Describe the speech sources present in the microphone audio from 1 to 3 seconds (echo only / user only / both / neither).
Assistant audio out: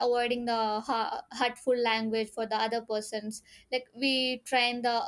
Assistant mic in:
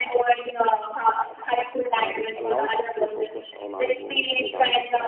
both